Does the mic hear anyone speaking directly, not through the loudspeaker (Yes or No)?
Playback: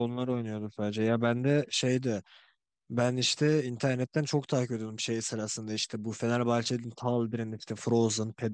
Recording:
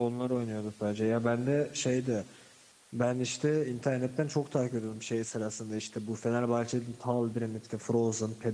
No